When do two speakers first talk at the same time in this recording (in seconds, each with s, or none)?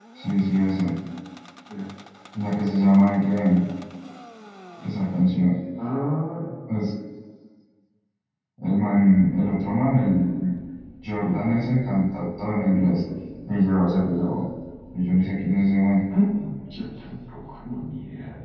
none